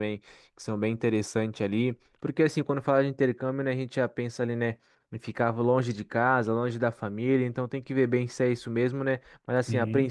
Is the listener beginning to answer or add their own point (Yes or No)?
No